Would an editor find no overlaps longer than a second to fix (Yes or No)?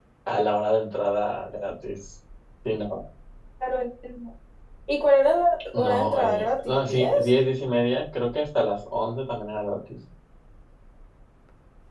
No